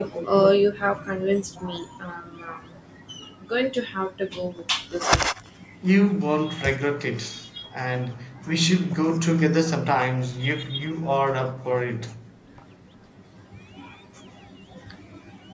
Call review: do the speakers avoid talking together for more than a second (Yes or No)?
Yes